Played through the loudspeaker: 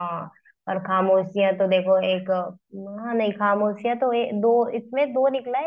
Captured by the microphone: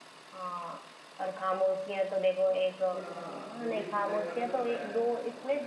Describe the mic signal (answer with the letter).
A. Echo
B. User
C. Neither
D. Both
D